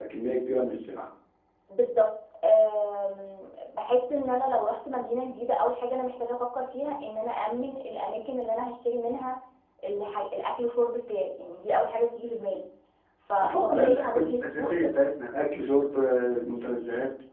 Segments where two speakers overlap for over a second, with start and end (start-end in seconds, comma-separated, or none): 13.4-14.7